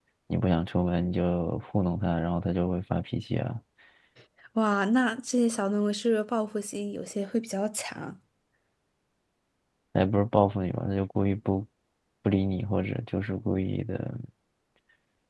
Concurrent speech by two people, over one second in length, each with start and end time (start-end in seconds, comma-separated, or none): none